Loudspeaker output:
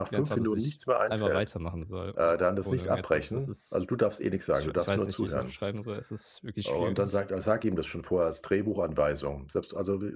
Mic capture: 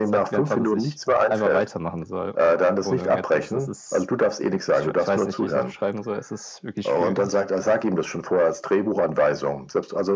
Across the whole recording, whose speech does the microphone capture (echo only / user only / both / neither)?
echo only